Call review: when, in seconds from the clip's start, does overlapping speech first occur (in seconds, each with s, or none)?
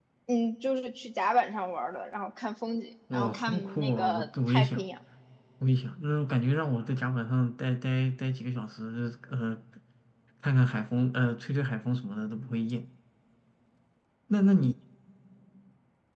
3.1 s